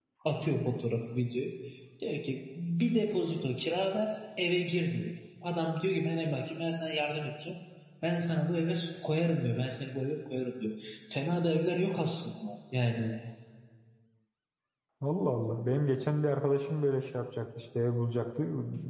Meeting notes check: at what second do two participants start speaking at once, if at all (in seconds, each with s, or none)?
none